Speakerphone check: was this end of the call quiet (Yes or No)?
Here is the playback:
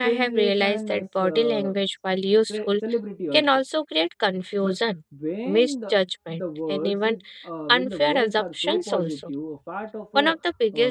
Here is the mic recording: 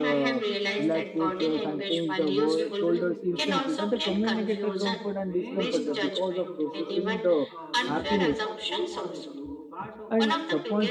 No